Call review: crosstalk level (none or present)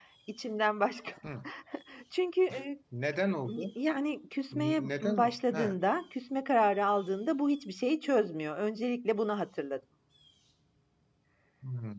present